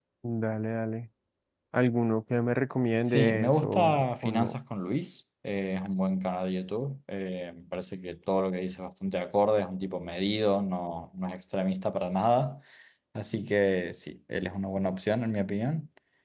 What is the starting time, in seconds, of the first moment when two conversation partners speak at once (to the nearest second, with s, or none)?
3 s